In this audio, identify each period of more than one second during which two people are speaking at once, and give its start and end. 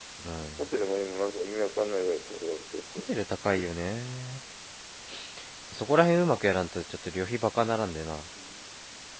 none

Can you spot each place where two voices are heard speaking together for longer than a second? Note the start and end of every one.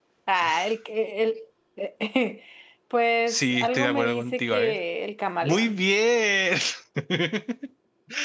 3.3-4.8

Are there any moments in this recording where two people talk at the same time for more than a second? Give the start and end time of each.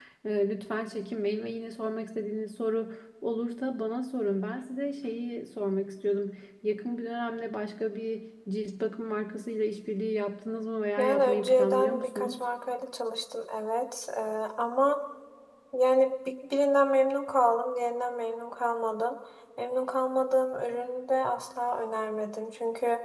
11.0-12.4

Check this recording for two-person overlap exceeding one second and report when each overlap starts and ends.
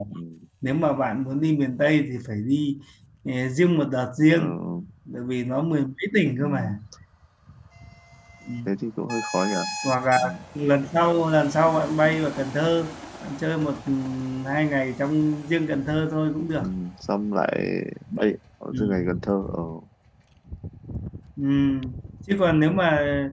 none

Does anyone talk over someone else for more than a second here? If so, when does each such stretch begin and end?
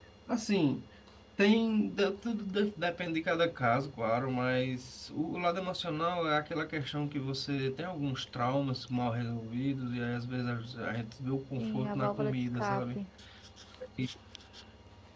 11.6-13.0

